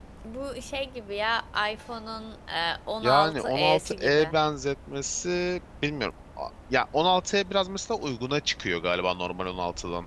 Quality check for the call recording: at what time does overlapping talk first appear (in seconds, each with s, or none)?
3.0 s